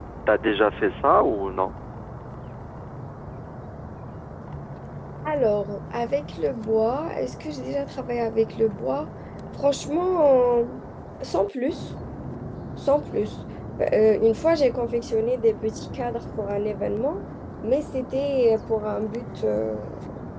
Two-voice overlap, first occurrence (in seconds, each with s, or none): none